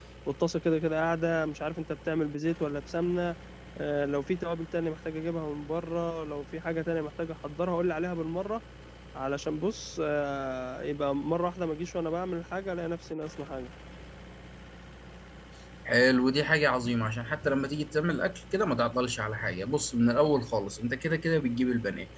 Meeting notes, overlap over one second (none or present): none